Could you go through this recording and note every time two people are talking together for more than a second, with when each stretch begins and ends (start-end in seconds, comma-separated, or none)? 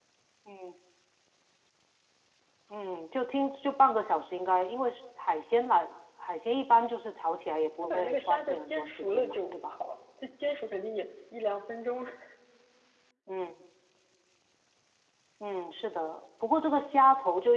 7.8-9.7